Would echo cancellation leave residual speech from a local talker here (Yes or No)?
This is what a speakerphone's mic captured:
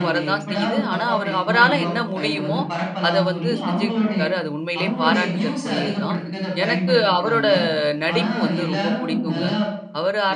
Yes